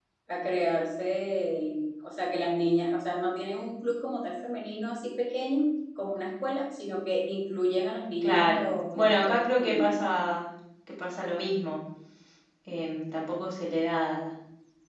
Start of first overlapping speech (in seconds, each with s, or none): 8.2 s